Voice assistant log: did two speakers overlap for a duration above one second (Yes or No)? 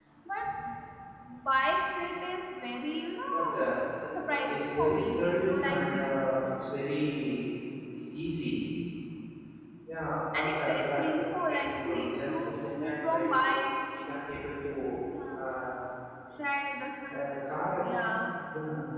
Yes